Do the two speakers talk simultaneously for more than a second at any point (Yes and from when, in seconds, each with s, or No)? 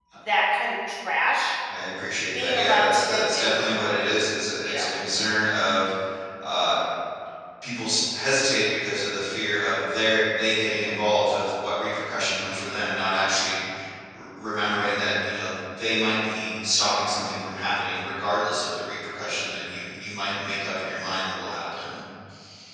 Yes, from 2.4 s